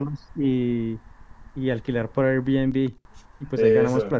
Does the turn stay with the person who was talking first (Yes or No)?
Yes